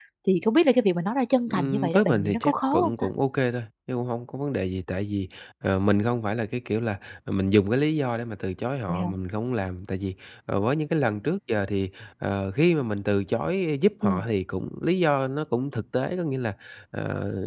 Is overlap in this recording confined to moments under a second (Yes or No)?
No